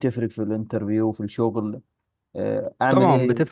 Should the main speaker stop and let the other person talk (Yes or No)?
Yes